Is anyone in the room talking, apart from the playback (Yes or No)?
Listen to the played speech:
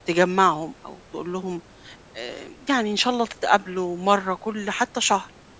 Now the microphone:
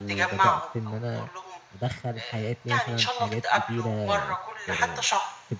Yes